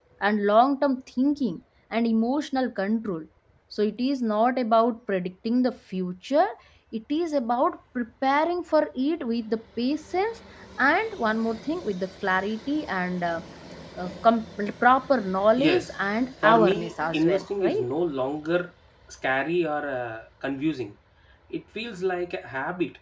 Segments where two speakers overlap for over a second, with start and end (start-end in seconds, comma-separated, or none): 16.4-17.9